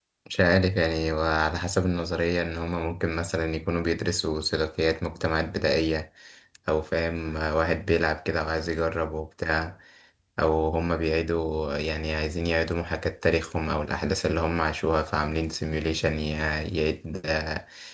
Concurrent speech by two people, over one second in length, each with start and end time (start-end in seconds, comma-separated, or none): none